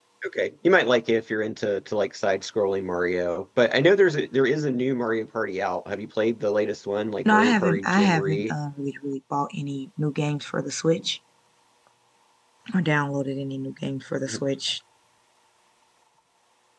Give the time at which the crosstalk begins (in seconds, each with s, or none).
7.2 s